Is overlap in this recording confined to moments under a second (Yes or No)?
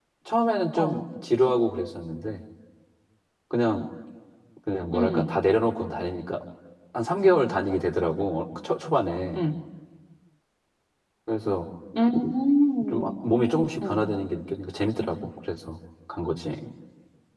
Yes